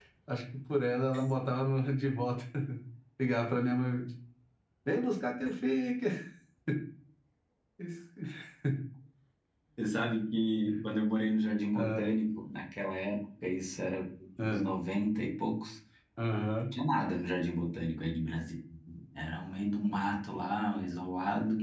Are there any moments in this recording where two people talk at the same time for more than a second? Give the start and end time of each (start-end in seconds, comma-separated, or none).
none